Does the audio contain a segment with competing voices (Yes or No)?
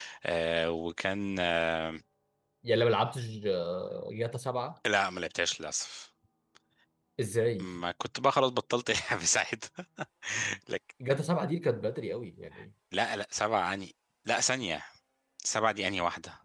No